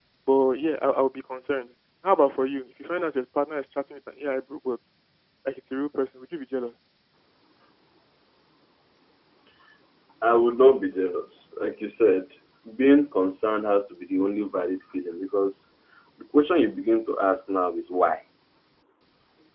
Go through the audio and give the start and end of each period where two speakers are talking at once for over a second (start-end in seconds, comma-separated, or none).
none